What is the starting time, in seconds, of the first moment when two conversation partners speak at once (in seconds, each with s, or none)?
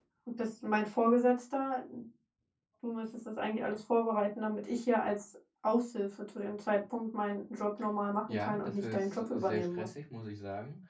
8.3 s